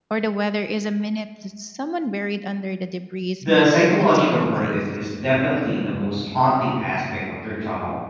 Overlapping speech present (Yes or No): Yes